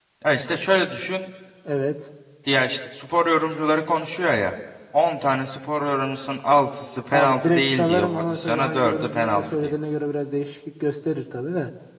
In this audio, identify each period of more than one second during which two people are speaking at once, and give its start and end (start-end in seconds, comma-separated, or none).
7.1-9.7